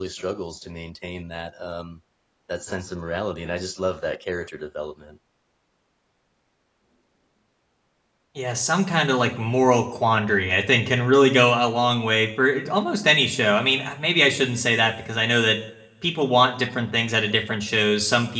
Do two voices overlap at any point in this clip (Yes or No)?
No